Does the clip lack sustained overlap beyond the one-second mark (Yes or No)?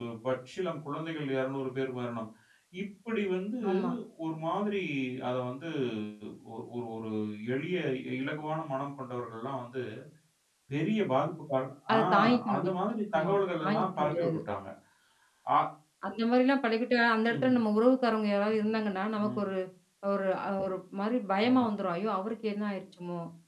No